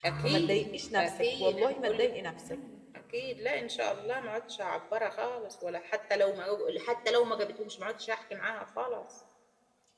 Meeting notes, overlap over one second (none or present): present